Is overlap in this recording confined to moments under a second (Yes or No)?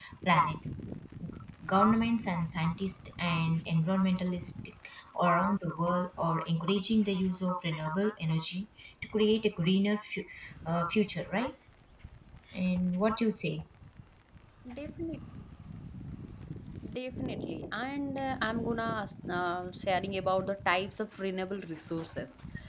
Yes